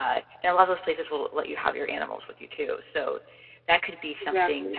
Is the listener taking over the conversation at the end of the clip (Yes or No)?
No